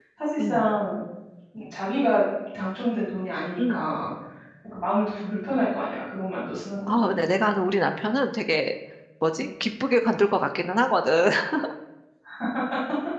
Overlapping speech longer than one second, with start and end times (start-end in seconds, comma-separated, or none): none